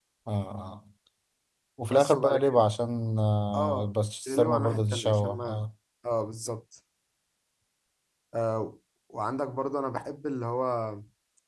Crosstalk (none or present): present